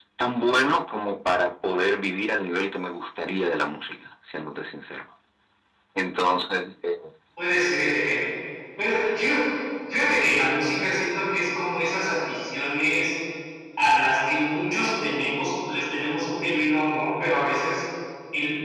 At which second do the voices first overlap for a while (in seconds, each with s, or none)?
none